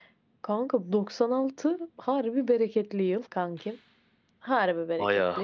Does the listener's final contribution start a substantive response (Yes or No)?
No